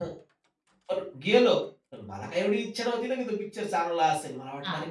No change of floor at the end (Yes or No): Yes